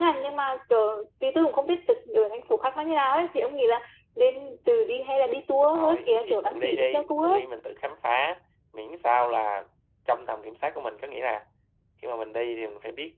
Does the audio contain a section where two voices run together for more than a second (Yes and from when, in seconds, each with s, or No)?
Yes, from 5.7 s